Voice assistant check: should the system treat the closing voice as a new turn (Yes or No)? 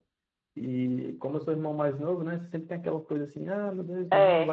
No